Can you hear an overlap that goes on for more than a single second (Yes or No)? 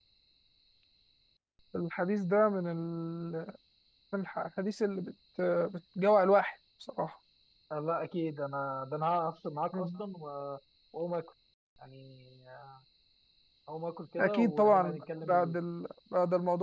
Yes